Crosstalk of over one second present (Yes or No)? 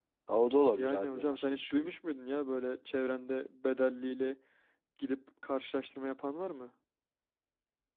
Yes